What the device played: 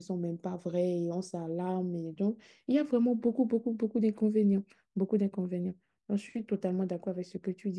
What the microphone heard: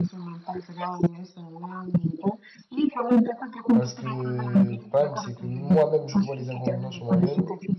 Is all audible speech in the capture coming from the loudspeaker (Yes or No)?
No